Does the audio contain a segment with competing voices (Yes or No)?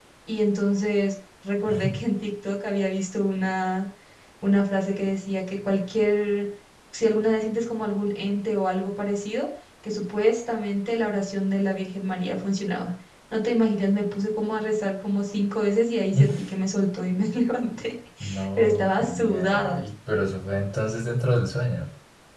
Yes